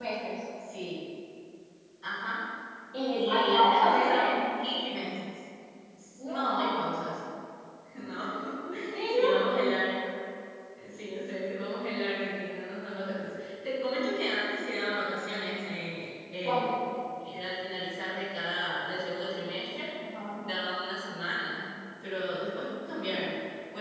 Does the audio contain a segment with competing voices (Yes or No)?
Yes